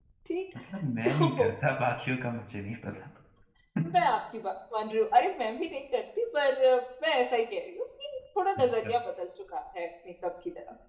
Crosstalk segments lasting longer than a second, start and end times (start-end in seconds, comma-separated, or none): none